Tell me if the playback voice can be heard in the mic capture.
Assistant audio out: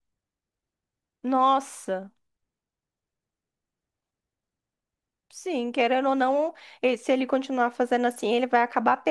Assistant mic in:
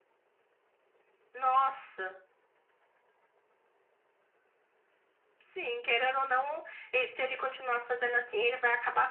Yes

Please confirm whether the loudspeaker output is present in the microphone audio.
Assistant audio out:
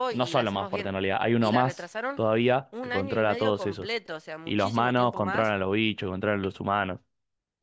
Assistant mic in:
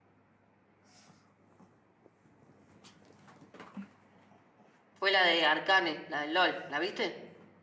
No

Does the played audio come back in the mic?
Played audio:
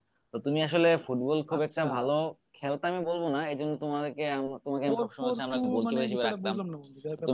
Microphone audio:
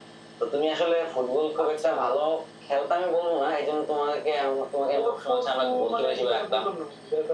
Yes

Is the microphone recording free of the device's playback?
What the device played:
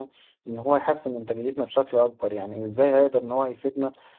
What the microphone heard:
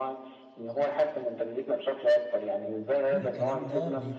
No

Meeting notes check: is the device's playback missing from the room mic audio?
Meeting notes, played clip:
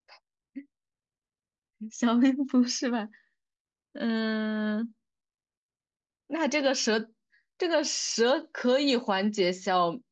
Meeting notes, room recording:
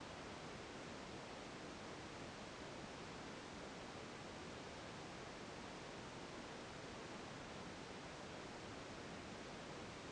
Yes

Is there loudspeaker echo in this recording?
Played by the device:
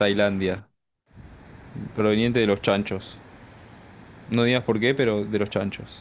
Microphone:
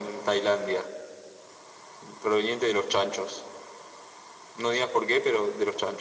Yes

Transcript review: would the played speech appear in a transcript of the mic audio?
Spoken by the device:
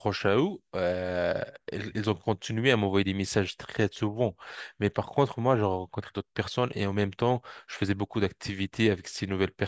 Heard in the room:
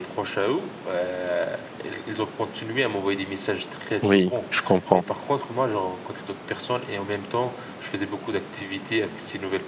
Yes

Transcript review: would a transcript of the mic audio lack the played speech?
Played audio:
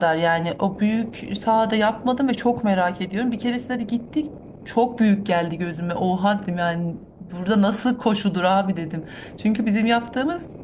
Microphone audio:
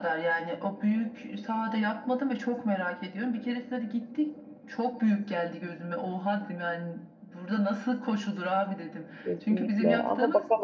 No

